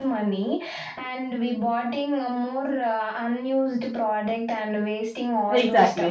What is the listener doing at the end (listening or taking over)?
taking over